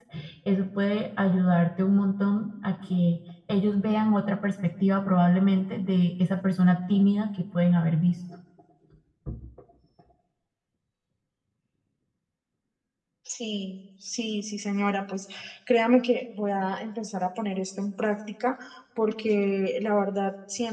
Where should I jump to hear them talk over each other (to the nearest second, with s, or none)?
none